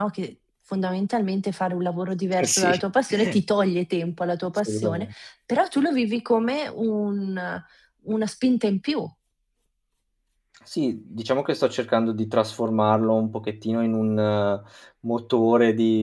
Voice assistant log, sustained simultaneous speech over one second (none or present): none